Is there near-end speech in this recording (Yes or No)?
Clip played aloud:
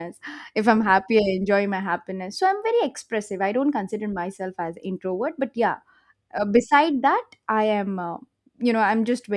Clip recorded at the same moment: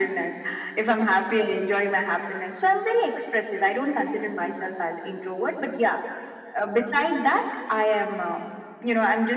No